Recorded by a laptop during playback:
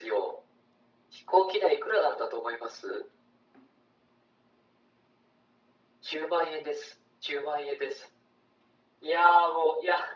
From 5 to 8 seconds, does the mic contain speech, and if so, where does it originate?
echo only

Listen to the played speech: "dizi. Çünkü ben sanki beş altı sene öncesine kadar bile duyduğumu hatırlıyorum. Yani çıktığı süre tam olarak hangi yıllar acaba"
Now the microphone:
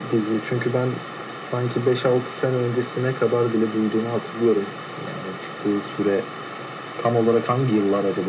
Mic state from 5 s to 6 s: echo only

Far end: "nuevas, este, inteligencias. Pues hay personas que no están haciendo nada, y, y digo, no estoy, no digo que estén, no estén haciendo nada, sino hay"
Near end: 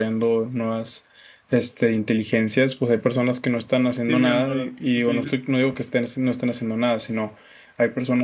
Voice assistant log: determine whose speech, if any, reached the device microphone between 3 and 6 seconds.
both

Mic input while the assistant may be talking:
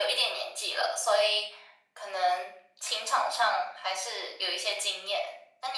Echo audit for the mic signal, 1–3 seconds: echo only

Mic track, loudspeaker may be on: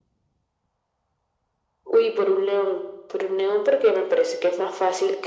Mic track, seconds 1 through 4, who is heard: echo only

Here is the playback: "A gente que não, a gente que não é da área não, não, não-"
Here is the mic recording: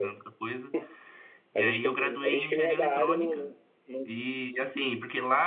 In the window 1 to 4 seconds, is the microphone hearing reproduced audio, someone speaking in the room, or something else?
both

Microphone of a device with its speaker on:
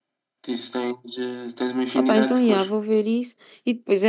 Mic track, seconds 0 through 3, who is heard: both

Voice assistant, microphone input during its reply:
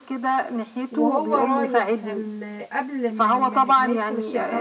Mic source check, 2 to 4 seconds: both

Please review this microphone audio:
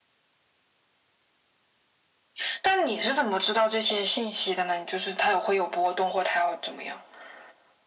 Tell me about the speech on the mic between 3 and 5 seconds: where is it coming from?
echo only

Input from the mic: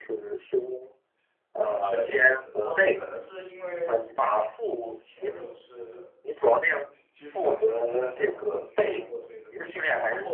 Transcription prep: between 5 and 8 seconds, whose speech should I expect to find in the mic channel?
both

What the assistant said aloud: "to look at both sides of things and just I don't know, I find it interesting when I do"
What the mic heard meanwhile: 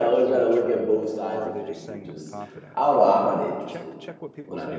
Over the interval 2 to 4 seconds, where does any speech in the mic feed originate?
both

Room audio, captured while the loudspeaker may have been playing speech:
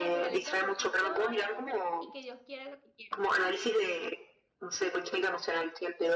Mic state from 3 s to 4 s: both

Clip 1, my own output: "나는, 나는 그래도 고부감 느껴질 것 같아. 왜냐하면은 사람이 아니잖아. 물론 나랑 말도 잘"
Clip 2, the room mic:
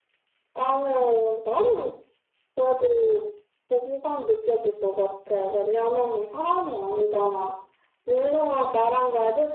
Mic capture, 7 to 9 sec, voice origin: echo only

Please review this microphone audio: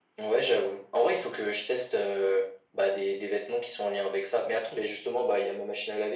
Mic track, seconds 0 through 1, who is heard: echo only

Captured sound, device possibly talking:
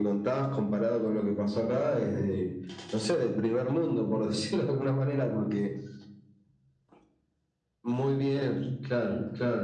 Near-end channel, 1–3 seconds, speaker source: echo only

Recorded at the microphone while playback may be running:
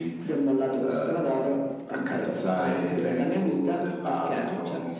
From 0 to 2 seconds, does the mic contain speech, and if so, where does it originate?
echo only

